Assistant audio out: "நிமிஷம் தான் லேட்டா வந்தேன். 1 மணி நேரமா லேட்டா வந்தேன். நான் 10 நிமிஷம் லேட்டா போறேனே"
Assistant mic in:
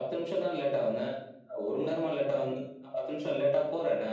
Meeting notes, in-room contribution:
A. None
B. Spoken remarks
A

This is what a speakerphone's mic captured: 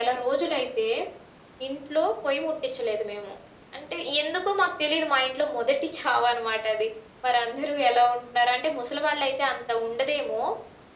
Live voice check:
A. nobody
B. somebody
A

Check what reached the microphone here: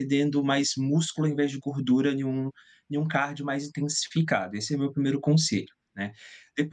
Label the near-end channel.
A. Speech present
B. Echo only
A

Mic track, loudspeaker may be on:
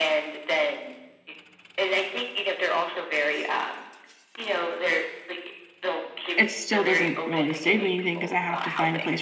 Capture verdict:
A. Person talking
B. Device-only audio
A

